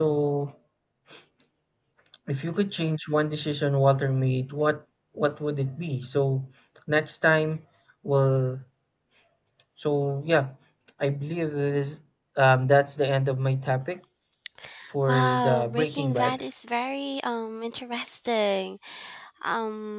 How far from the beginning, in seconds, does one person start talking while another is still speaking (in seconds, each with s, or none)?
15.1 s